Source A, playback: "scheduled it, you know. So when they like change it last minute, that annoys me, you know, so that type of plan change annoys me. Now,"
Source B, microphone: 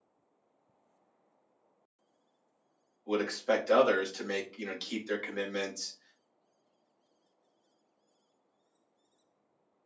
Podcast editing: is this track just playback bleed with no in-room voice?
No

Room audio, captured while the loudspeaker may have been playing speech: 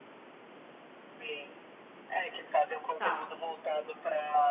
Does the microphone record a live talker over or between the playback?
Yes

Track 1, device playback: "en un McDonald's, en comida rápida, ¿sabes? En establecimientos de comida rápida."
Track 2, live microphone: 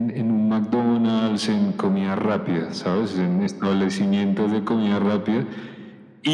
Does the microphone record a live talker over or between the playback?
No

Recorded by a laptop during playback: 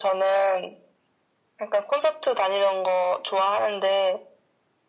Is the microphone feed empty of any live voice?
Yes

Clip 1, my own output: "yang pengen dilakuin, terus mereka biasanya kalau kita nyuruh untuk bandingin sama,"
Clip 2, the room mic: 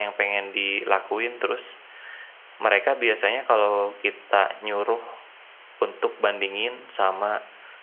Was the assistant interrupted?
No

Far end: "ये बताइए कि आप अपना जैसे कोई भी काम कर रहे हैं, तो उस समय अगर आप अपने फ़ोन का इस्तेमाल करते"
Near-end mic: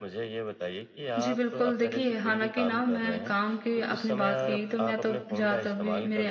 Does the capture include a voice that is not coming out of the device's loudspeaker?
Yes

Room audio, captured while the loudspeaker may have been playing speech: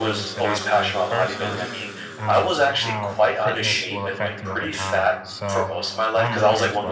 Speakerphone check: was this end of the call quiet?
No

